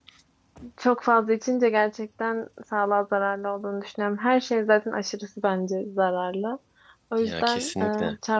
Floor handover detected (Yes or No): No